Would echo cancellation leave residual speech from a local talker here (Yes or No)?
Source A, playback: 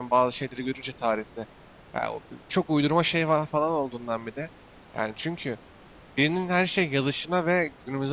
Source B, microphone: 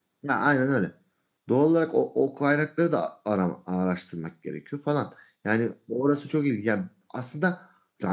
Yes